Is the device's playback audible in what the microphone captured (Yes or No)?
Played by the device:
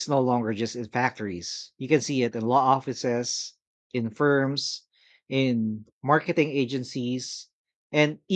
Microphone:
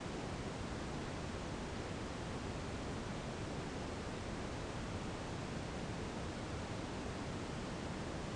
No